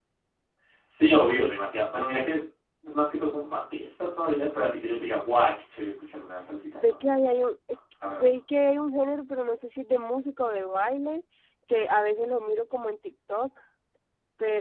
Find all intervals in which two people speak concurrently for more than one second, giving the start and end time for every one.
none

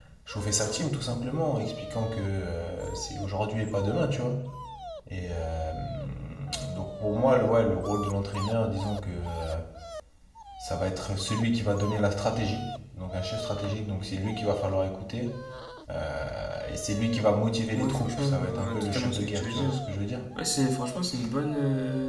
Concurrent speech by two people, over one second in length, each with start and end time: 17.8-19.8

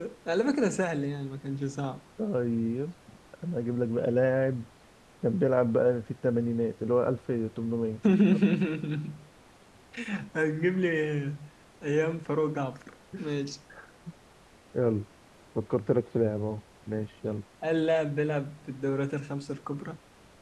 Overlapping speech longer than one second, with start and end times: none

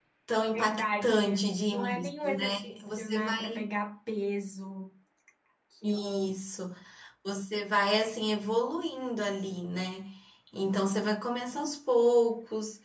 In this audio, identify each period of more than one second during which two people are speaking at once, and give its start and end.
0.5-3.6

